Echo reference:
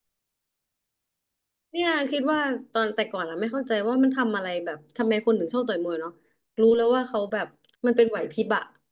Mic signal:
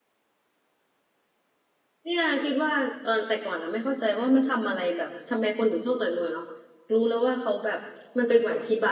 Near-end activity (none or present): none